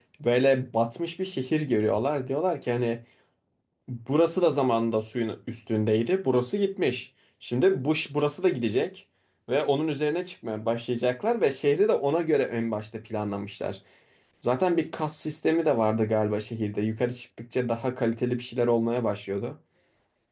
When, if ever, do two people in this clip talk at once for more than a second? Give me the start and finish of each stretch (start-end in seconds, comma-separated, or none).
none